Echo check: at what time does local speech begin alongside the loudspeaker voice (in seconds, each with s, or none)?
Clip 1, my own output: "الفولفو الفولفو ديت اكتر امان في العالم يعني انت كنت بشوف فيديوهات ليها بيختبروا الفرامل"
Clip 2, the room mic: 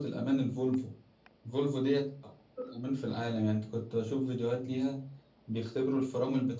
none